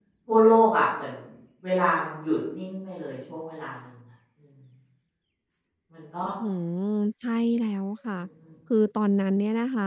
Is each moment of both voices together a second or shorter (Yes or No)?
Yes